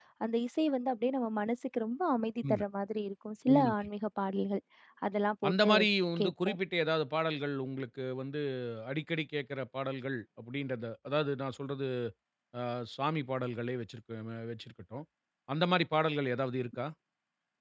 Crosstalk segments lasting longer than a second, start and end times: none

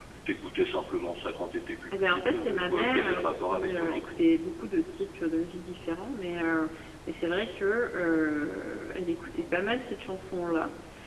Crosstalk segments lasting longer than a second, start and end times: 2.0-4.2

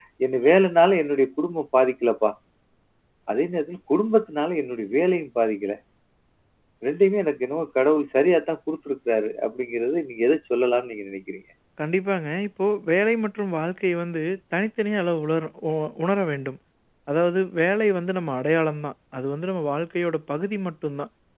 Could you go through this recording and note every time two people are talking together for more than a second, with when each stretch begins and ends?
none

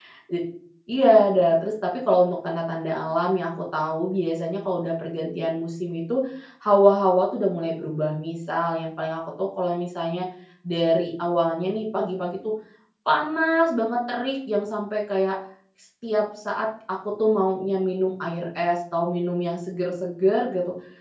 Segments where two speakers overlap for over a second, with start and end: none

